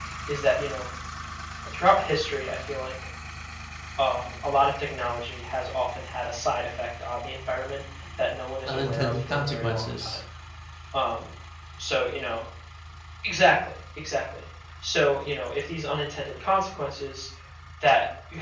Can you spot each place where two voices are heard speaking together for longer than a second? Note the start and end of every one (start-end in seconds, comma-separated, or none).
8.7-10.2